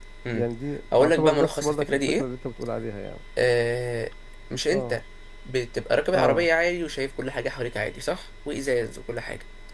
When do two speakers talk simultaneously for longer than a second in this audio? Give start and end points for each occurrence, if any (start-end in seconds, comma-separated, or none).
1.0-2.2